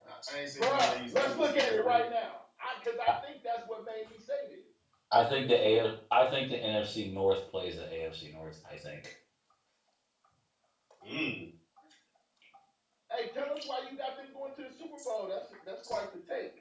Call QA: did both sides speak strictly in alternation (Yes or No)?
No